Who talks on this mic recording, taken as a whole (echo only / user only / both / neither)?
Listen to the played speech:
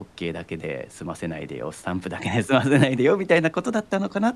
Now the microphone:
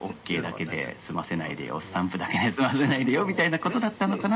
both